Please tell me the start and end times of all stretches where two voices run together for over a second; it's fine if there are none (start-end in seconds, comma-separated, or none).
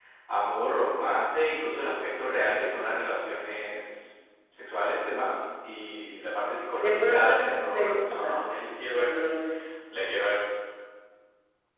6.8-8.4